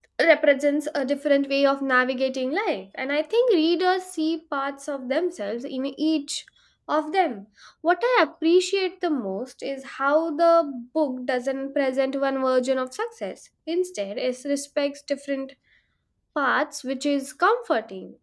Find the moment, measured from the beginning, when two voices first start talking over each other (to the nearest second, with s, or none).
none